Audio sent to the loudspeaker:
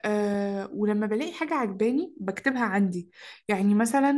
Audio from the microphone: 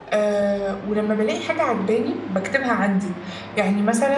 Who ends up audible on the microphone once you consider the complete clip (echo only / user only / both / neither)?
echo only